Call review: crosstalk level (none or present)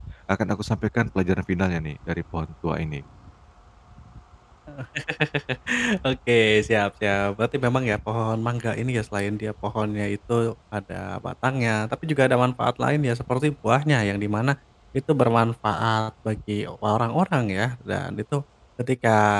none